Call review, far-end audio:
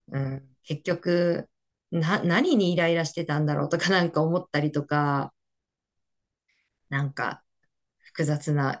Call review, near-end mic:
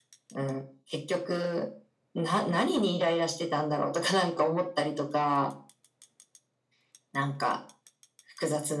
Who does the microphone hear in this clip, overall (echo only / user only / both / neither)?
echo only